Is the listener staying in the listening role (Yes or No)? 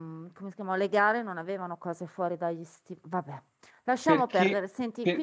No